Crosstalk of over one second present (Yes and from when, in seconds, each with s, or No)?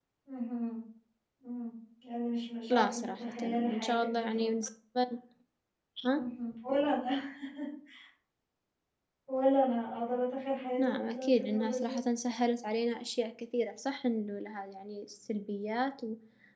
Yes, from 2.7 s